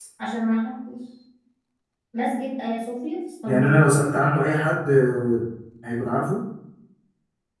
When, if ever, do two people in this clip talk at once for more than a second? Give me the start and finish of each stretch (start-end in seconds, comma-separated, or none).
none